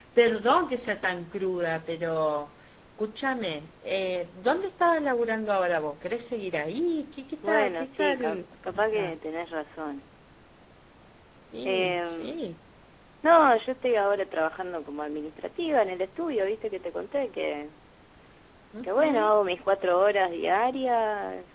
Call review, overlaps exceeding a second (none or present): present